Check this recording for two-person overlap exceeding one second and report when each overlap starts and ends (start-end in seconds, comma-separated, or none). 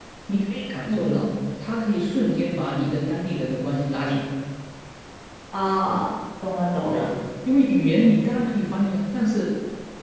none